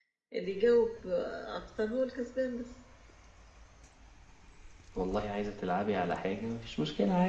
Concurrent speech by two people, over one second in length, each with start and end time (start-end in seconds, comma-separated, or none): none